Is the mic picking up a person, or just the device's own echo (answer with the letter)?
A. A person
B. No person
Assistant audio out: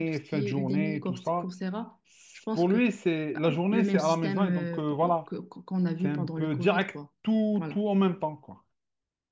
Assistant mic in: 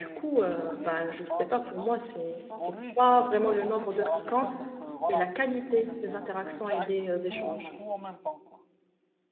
A